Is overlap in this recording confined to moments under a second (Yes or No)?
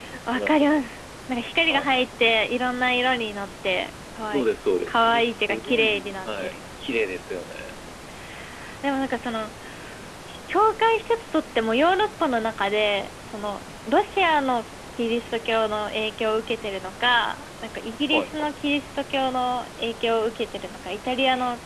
No